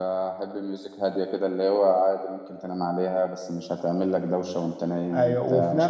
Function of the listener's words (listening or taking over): taking over